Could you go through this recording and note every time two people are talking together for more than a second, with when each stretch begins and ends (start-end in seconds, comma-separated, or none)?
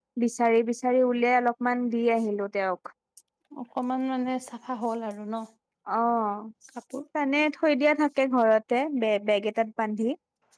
none